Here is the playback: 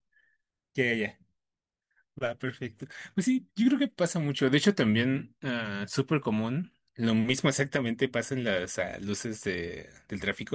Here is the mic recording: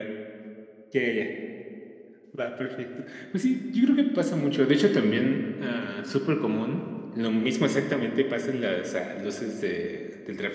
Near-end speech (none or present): none